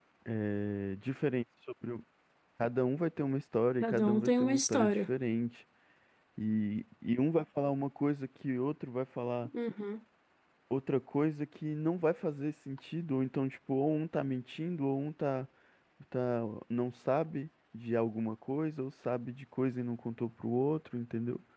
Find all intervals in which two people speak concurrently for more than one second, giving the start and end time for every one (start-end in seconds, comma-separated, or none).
3.8-5.0